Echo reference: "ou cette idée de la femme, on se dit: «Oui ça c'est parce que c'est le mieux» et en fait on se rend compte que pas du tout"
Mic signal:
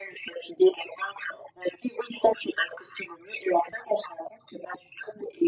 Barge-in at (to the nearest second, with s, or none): none